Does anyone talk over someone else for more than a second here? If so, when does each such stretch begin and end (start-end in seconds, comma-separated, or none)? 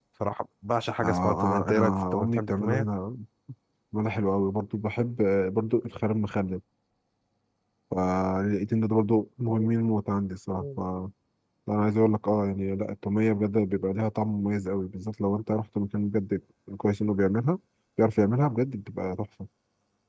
1.0-2.9